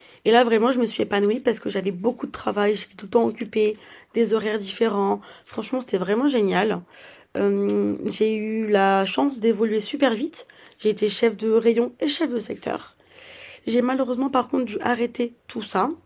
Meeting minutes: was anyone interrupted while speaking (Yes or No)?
No